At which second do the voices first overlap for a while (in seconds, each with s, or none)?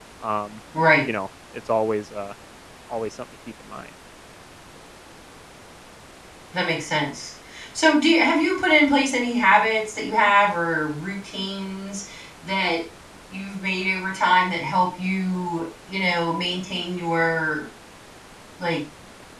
none